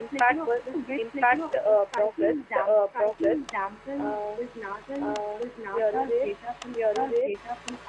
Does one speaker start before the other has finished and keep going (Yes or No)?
Yes